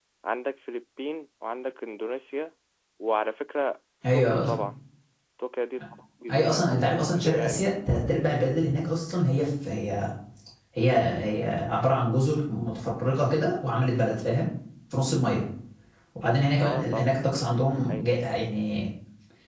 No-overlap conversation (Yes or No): No